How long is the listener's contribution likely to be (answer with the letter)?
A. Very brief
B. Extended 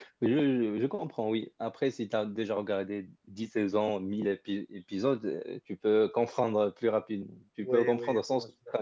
B